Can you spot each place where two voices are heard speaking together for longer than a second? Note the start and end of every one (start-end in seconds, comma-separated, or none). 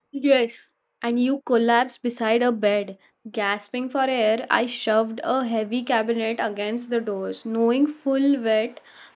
none